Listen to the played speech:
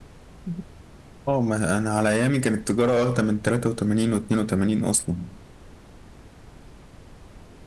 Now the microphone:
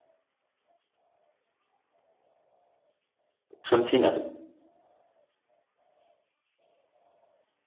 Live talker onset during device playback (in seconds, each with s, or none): 3.6 s